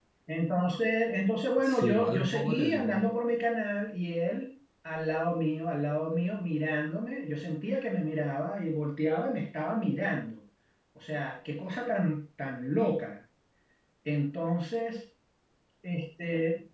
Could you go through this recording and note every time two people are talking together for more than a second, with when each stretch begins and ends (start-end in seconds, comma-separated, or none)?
1.6-3.1